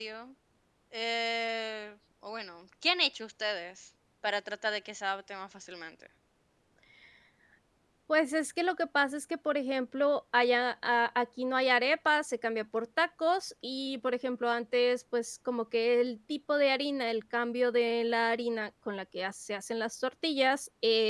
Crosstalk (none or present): none